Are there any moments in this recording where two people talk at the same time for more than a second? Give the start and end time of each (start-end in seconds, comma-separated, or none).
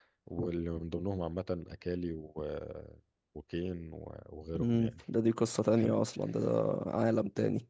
none